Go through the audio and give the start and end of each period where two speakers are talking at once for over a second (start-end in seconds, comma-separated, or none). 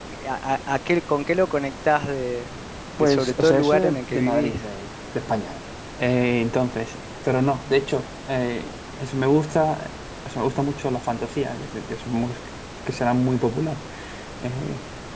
3.0-4.6